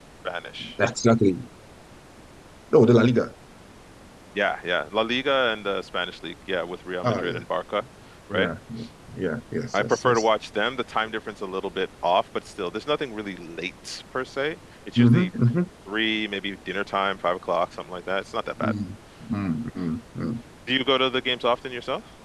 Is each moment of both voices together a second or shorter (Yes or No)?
Yes